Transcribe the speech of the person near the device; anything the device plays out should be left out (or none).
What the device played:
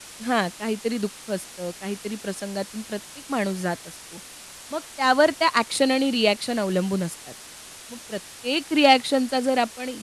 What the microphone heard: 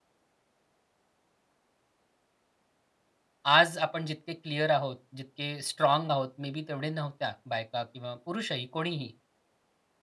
आज आपण जितके क्लिअर आहोत, जितके स्ट्रॉंग आहोत, मे बी तेवढे नव्हत्या बायका किंवा पुरुषही कोणीही.